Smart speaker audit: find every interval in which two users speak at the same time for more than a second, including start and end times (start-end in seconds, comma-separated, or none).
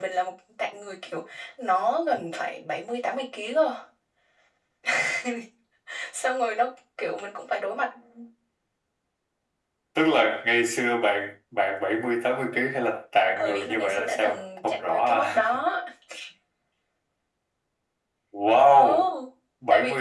13.4-15.4